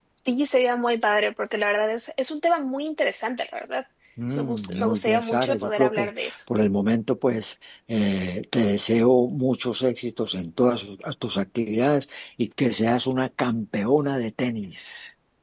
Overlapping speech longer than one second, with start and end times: 4.4-6.3

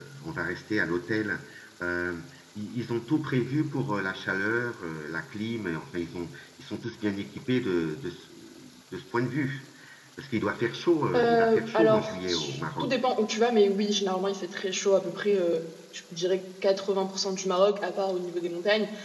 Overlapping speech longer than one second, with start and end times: 11.2-12.9

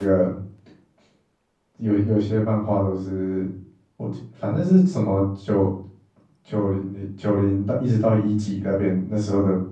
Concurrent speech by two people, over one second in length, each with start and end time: none

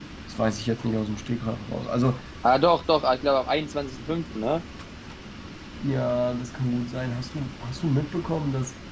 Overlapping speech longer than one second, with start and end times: none

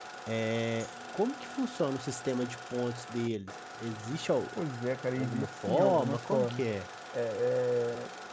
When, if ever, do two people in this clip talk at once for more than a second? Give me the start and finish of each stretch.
5.1-6.6

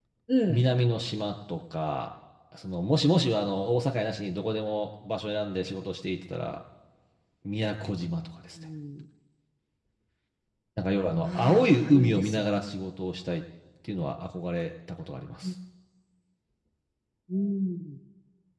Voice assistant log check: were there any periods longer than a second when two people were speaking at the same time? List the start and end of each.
11.2-12.4

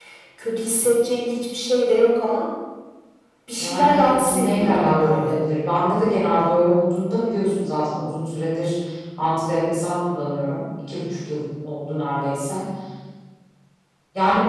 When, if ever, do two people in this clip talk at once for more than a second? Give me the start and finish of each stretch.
3.6-5.4

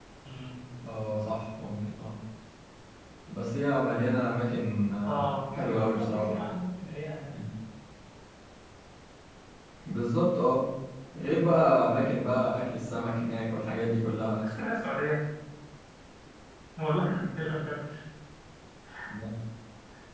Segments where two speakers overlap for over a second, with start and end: 5.0-6.4

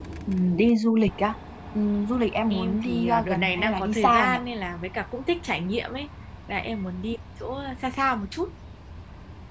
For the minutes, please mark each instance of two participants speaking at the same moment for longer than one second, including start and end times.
2.5-4.4

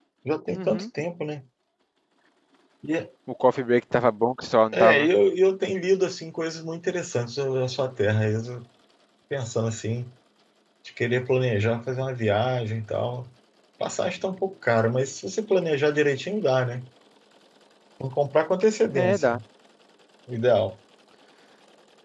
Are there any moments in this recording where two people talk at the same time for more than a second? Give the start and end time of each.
none

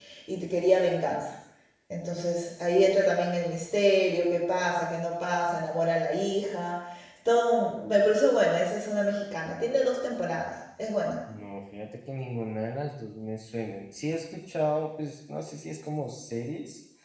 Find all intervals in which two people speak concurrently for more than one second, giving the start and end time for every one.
none

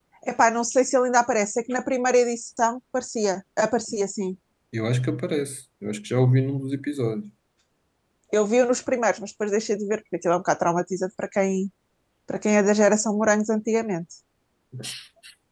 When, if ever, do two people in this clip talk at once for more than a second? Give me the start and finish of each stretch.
none

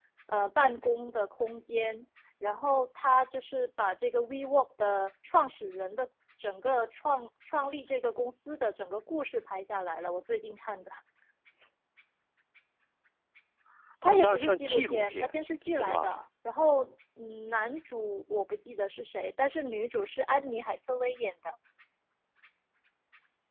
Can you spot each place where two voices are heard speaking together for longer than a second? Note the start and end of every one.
14.1-16.2

